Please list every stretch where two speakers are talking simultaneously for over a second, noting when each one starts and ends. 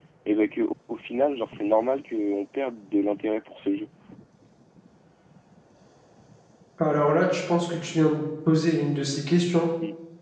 none

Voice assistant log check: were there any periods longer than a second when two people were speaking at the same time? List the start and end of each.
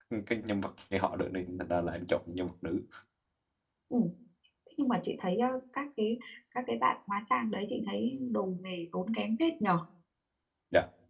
none

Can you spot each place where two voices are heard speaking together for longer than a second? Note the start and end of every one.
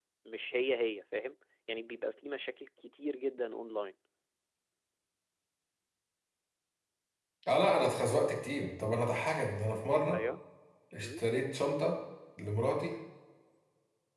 none

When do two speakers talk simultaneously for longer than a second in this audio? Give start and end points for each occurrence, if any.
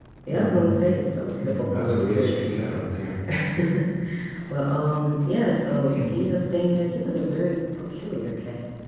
1.4-2.8

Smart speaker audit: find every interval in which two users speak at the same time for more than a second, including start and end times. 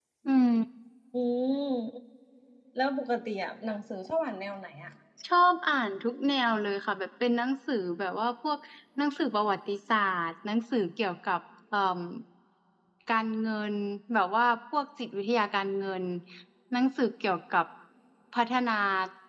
none

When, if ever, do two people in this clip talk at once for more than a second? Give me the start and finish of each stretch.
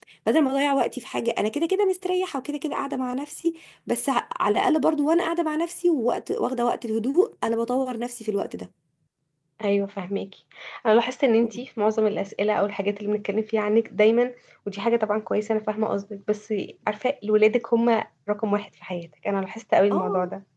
none

